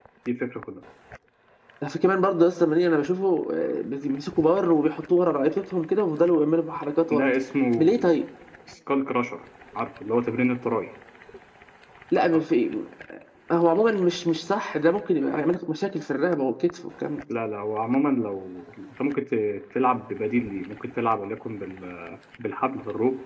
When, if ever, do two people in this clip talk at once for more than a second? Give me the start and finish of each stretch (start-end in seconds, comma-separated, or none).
none